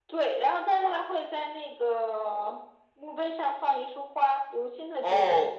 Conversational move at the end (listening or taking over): taking over